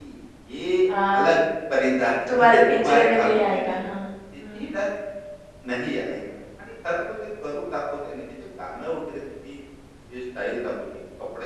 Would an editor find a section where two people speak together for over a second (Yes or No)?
Yes